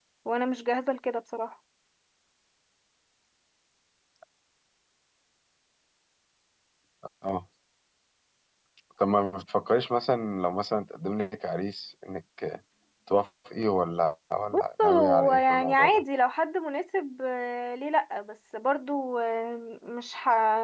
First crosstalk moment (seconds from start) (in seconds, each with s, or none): 14.5 s